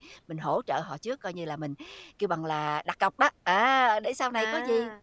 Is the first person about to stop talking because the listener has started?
No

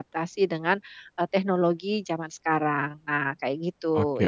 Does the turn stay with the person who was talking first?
No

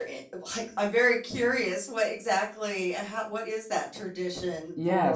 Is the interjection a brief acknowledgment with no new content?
No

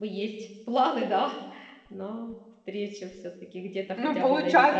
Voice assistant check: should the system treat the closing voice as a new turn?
Yes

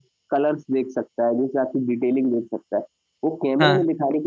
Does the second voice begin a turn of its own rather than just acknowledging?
No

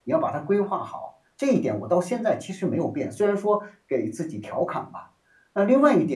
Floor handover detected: No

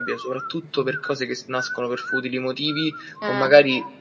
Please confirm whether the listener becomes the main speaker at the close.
No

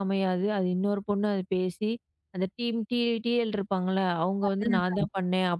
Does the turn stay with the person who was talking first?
Yes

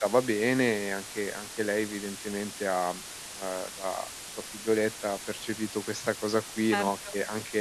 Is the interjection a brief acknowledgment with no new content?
Yes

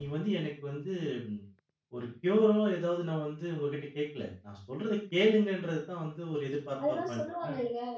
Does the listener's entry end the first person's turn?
Yes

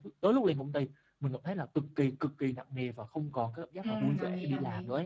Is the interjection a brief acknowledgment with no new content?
No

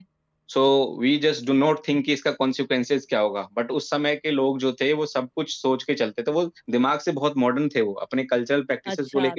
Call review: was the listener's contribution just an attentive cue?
No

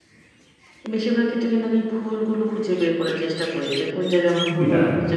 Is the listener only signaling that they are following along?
Yes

